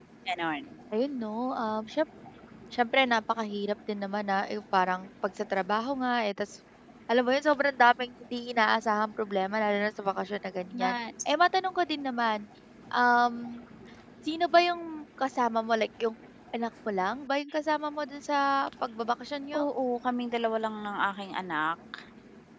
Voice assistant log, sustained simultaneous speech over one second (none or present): none